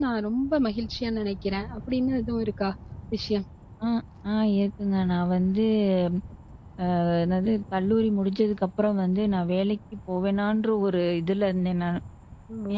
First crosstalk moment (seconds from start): none

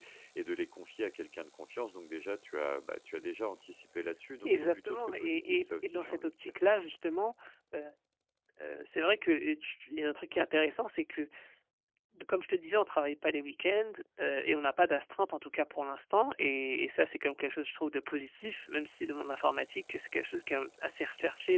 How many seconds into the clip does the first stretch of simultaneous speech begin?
4.4 s

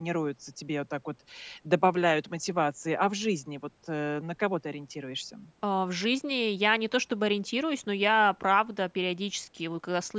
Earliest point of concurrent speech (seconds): none

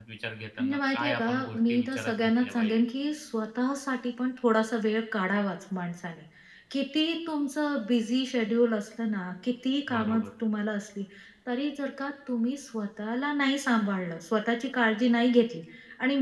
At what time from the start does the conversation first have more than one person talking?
0.6 s

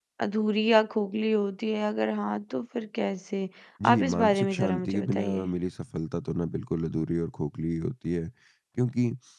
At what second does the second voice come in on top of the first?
3.9 s

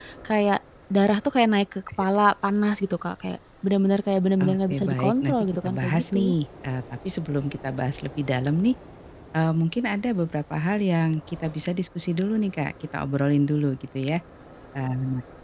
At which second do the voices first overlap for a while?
4.4 s

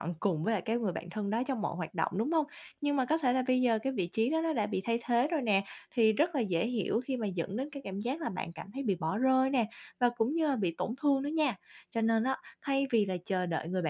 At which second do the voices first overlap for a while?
none

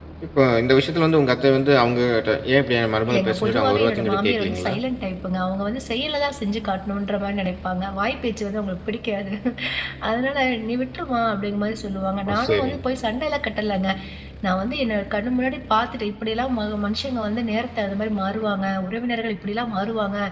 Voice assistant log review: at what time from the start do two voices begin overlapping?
3.1 s

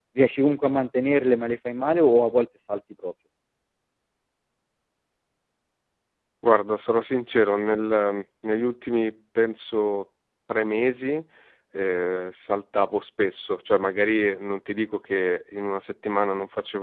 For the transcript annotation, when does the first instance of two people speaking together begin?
none

